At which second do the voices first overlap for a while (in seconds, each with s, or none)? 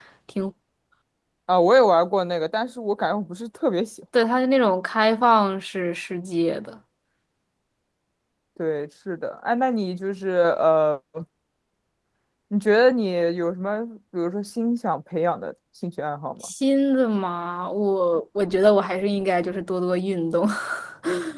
none